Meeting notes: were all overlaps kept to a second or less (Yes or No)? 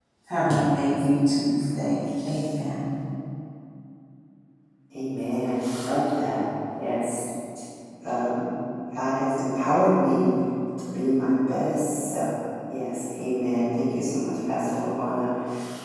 Yes